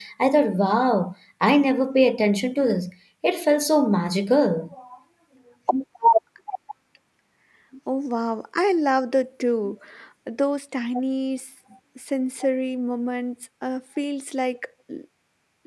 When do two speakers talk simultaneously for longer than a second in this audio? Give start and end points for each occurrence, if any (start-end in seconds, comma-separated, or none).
none